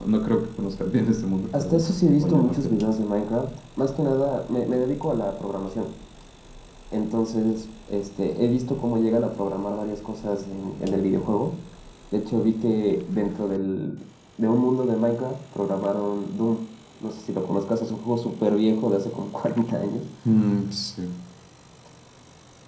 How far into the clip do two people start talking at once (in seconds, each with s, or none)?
1.5 s